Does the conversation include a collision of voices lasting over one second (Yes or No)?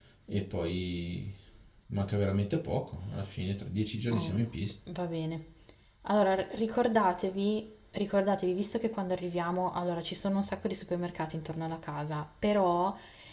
No